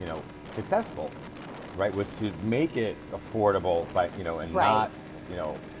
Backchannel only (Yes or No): Yes